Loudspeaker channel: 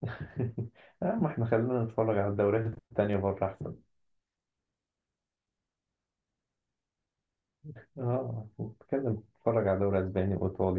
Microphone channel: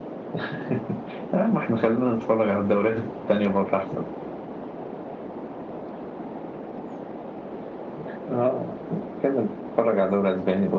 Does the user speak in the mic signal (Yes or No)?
No